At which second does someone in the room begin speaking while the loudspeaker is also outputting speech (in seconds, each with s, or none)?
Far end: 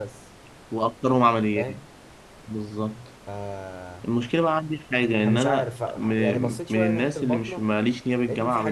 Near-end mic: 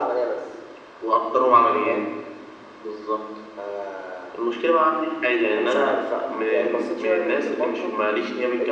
none